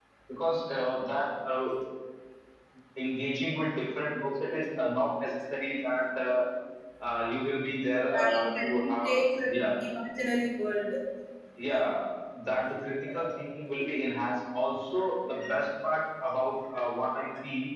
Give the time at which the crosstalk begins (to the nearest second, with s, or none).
8 s